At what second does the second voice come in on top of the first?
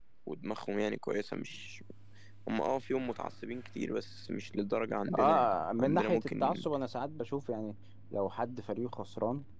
5 s

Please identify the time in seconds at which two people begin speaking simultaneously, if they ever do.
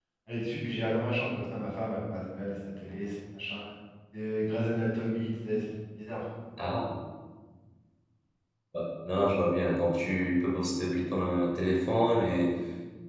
none

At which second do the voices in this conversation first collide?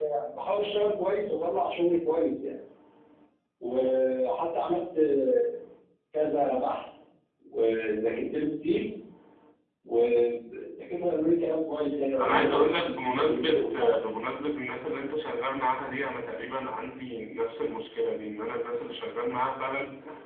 12 s

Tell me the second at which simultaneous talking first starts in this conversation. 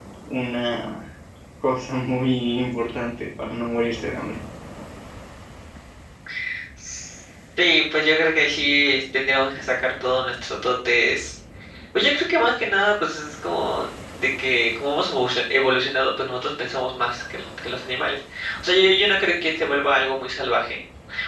none

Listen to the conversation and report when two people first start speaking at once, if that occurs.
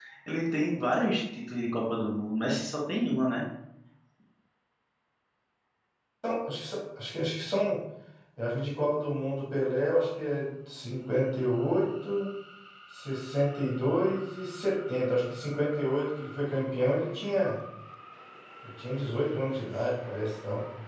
none

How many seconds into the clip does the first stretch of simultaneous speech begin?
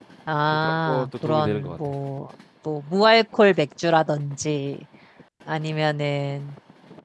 1 s

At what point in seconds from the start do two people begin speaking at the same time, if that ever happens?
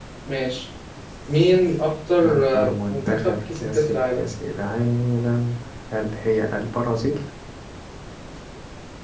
2 s

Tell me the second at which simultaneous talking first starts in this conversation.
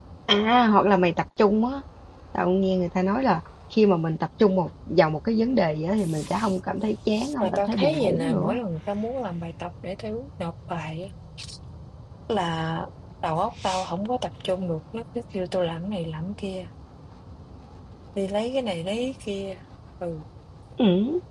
7 s

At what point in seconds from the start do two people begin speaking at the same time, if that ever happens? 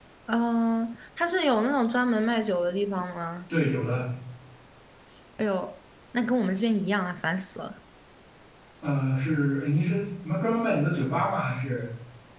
none

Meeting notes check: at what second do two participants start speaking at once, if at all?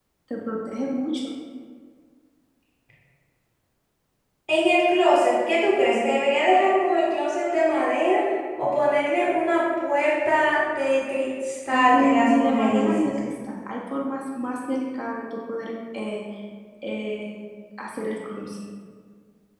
12 s

